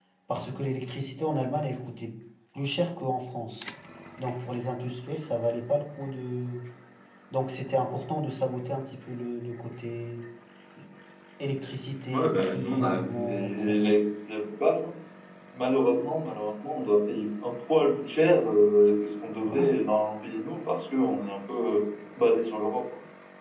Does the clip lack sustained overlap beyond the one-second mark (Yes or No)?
No